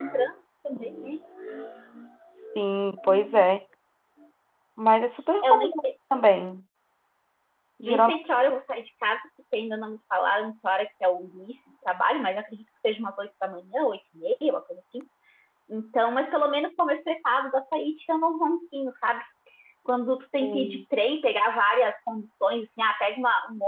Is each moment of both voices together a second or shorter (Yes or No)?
Yes